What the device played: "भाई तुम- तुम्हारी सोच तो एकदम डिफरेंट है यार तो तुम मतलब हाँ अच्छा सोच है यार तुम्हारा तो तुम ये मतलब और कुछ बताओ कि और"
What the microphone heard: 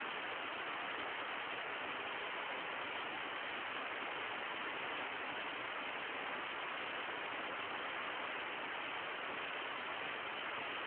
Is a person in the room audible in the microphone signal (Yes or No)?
No